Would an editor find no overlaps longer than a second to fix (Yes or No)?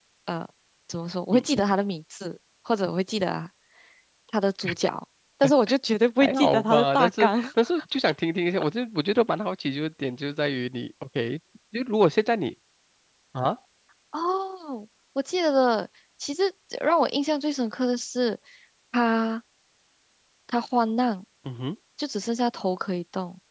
No